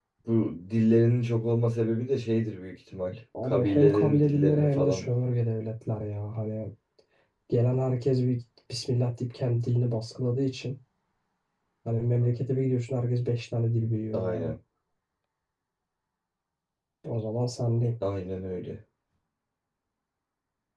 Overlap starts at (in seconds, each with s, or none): 3.4 s